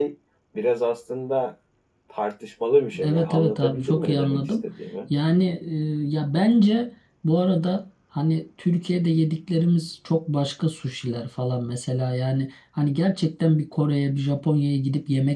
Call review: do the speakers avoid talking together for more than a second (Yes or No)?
No